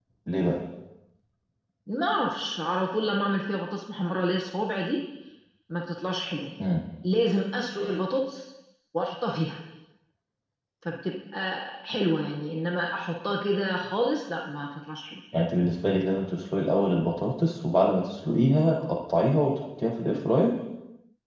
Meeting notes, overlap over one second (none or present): none